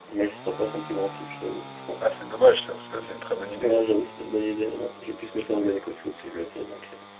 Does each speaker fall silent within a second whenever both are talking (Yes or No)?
Yes